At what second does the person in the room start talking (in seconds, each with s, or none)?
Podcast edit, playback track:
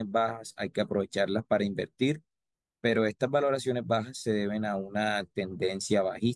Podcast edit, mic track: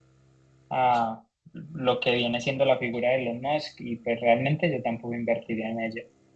0.7 s